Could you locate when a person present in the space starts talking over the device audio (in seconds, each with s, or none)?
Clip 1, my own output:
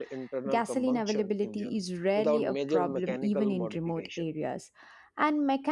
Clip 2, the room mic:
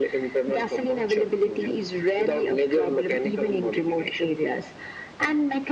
none